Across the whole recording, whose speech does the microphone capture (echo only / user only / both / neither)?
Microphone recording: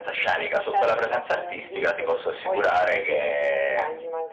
echo only